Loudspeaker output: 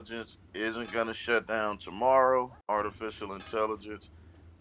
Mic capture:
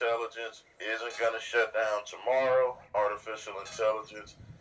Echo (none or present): present